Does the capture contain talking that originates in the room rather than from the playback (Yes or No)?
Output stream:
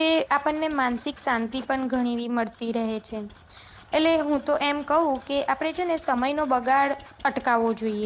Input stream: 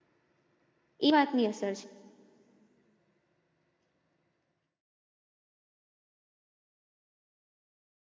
Yes